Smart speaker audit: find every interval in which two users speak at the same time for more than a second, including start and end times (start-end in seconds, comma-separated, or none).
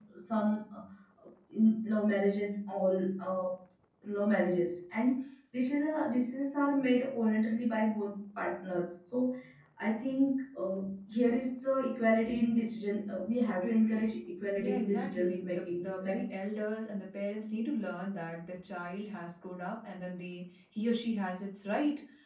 14.6-16.3